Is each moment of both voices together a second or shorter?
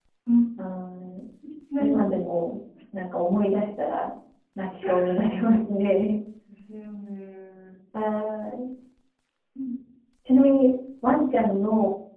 Yes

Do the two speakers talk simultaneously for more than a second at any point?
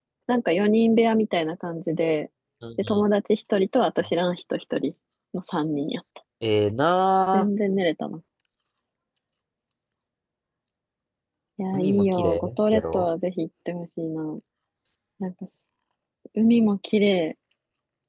Yes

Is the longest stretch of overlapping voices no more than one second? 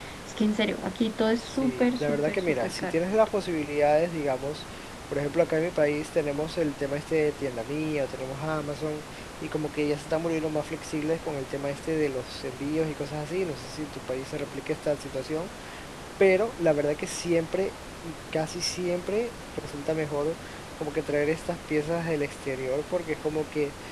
No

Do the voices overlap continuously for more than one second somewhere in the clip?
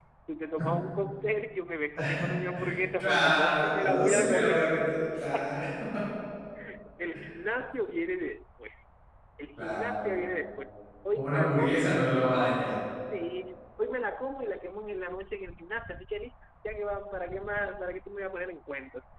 Yes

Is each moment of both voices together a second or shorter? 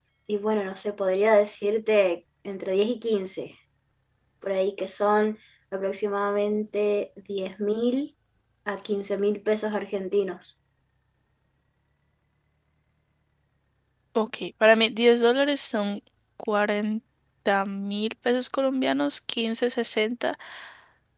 Yes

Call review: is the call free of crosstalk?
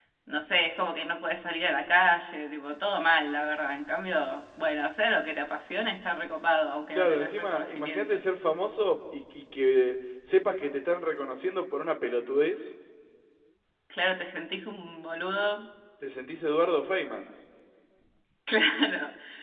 No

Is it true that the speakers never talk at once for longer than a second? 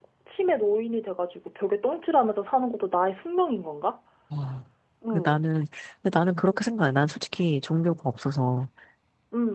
Yes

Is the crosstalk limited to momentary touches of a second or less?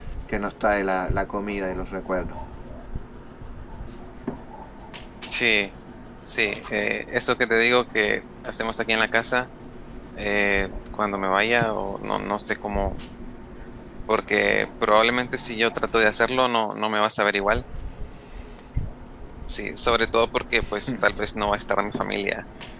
Yes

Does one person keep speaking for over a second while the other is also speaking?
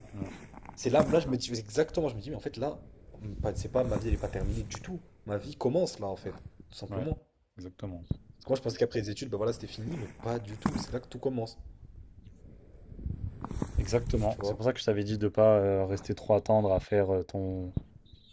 No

